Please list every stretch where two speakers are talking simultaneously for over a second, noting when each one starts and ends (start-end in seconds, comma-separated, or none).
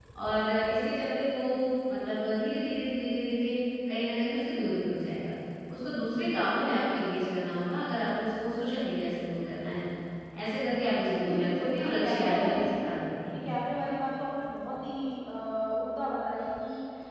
11.2-12.6